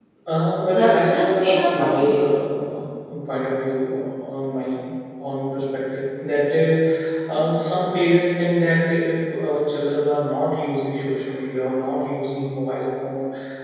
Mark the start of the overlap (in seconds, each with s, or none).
0.7 s